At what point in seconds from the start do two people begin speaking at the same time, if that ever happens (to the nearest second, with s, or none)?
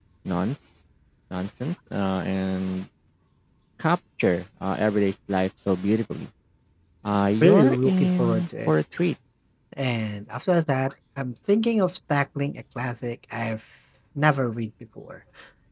7 s